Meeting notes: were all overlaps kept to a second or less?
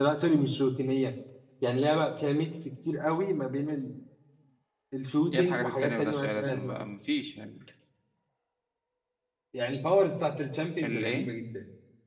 No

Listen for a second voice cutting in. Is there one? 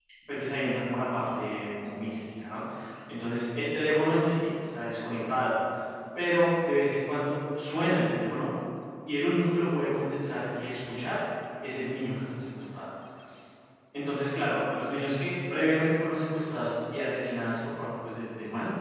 No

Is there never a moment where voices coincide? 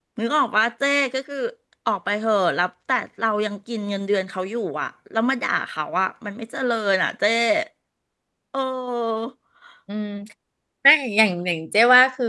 Yes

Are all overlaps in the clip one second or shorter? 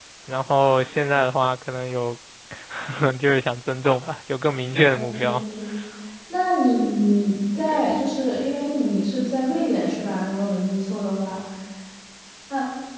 Yes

